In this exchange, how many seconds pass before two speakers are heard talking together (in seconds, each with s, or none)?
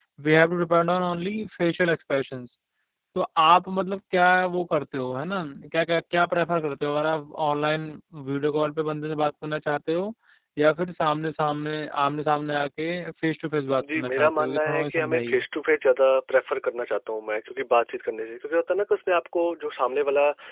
13.8 s